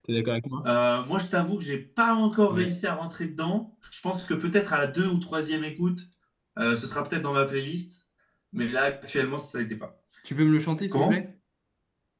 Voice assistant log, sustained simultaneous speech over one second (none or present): none